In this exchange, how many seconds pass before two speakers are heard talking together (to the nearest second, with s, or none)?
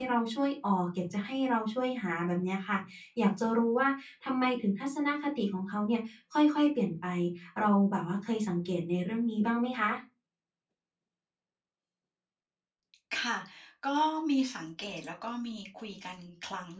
none